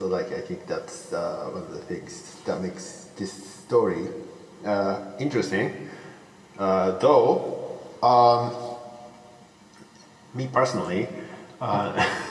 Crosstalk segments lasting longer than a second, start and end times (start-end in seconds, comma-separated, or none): none